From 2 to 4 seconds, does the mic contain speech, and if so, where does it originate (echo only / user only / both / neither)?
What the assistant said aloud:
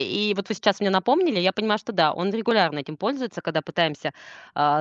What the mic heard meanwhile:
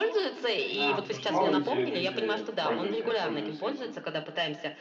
both